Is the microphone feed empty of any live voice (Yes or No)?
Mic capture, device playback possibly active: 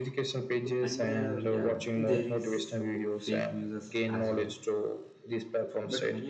No